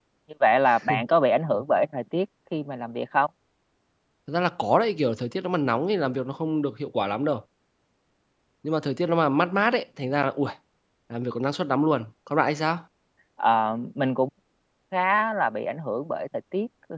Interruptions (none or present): none